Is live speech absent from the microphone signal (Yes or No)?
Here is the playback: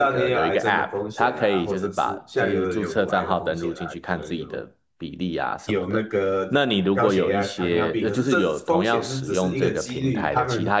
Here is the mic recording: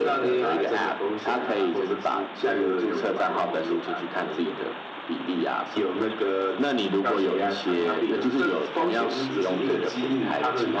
Yes